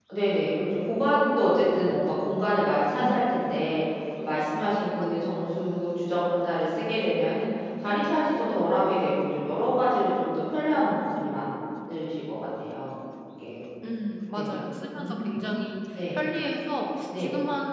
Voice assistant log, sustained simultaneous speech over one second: none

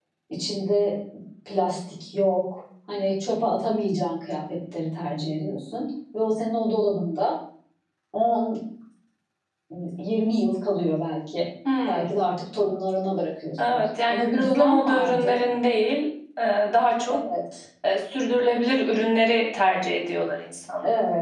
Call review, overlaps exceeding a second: present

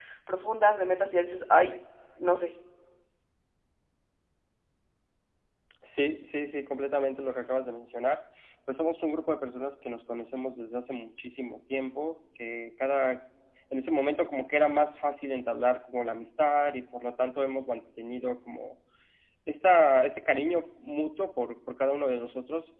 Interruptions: none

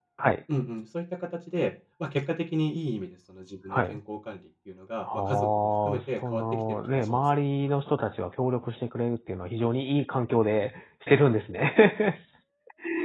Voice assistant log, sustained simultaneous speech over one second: present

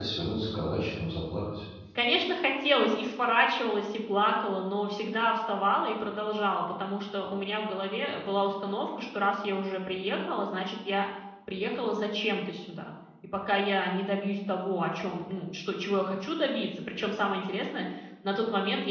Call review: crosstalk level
none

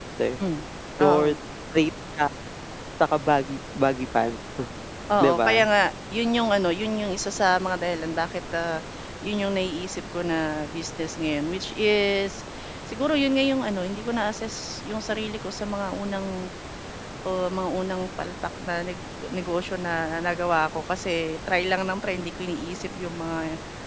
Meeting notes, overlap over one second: none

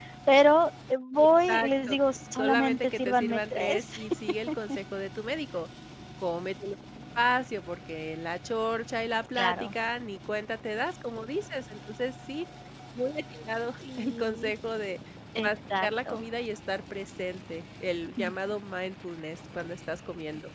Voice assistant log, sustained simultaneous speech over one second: present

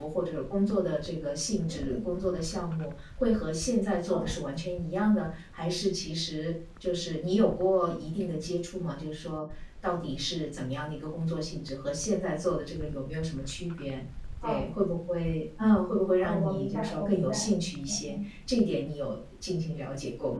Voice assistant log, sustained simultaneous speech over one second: present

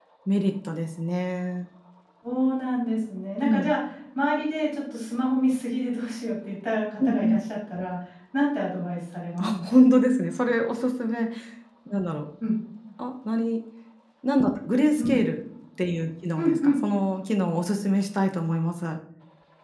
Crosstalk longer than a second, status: none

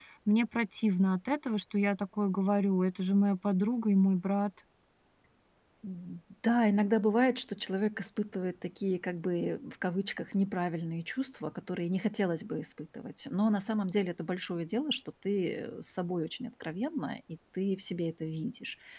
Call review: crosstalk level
none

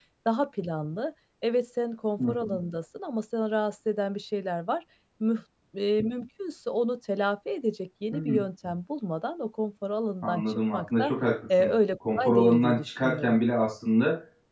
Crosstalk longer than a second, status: present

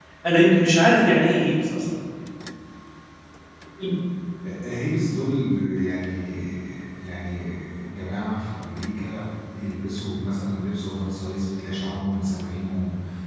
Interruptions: none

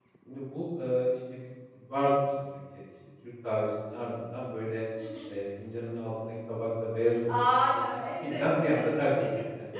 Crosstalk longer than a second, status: present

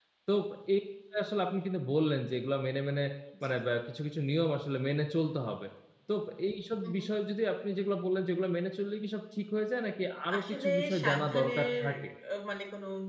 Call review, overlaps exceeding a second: present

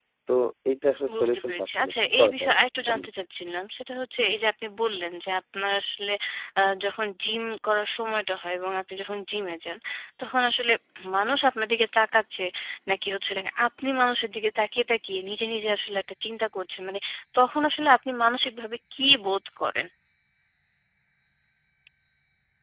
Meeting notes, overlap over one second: present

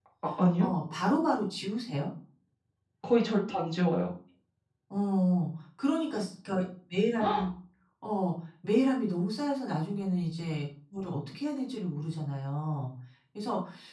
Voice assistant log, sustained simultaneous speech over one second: none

